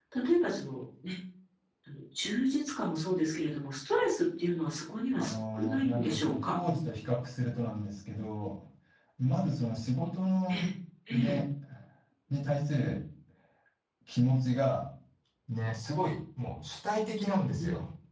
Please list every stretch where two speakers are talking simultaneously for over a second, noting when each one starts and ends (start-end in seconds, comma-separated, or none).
5.2-6.5